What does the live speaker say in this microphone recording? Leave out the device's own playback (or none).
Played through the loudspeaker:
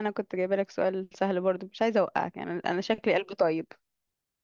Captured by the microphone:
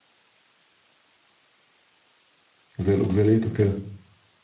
زي الأوكزاليت وكده